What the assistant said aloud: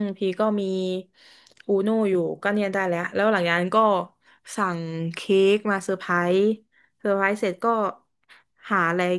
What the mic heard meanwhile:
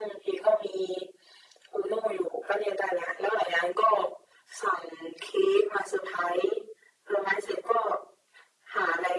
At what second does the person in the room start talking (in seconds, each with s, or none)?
none